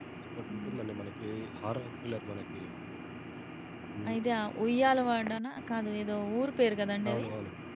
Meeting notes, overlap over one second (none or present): none